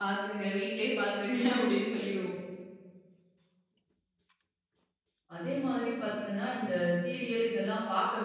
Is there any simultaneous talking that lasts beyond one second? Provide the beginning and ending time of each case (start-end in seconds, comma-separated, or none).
none